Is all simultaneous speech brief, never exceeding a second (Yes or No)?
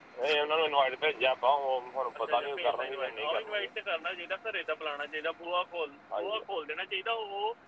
No